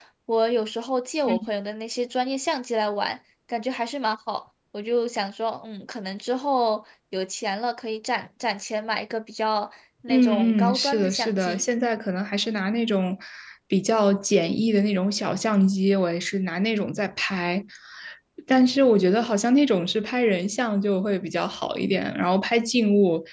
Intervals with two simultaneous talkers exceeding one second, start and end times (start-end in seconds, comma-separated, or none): 10.1-11.6